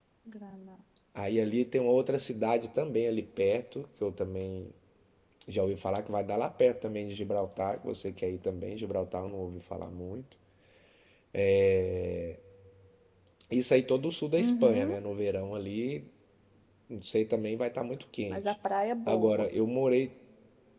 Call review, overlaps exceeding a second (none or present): none